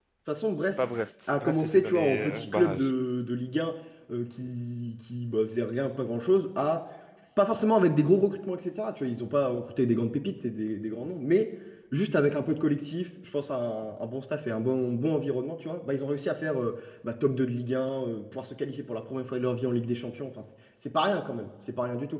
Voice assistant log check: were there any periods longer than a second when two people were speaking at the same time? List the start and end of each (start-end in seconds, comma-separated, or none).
0.8-2.9